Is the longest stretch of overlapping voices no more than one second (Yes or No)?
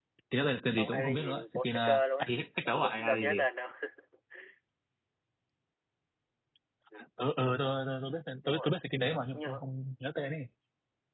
No